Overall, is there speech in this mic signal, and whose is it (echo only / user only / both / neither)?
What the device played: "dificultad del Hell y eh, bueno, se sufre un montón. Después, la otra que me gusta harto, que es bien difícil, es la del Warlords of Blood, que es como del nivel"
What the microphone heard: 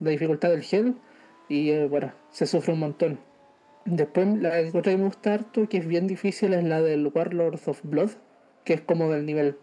echo only